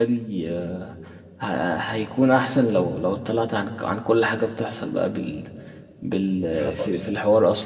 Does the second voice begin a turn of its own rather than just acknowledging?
No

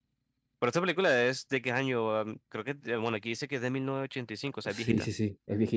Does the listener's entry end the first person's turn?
Yes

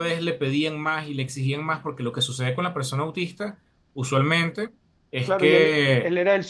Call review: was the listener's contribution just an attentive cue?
No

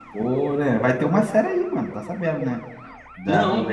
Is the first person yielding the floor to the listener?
No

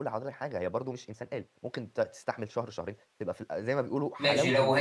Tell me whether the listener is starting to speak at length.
Yes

